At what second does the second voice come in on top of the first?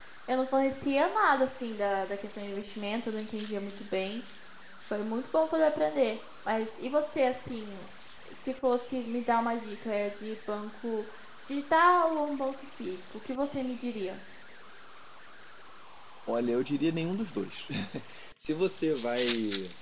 none

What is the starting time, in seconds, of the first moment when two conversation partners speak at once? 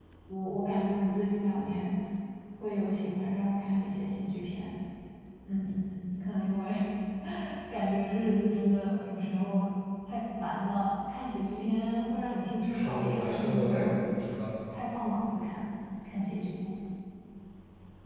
13 s

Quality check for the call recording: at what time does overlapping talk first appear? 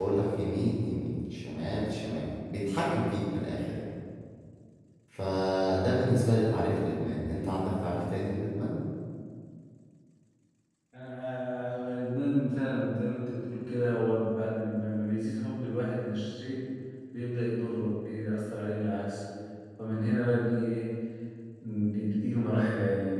none

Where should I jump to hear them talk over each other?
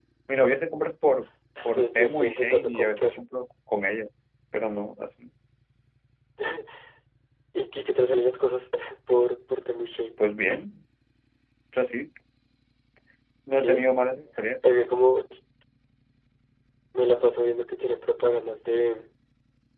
2 s

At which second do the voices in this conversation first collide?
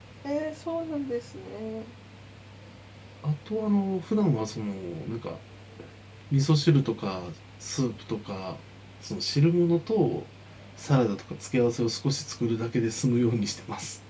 none

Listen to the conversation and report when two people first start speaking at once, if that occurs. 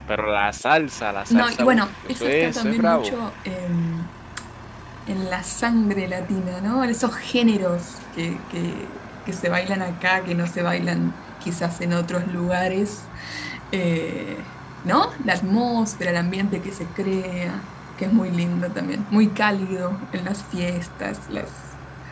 1 s

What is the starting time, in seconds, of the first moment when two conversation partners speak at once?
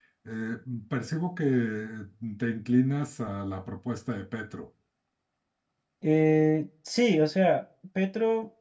none

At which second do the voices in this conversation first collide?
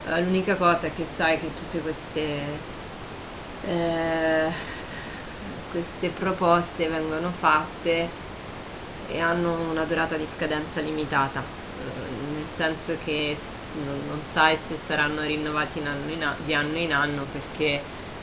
none

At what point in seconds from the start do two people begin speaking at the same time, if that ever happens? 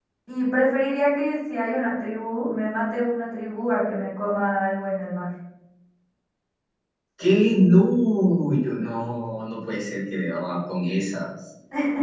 none

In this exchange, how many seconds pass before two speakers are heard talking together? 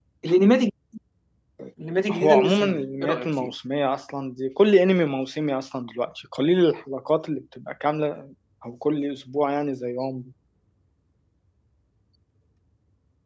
2 s

